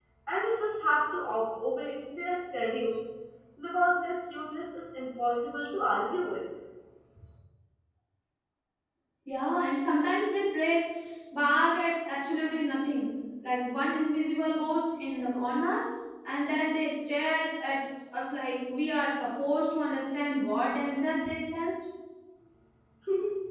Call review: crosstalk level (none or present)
none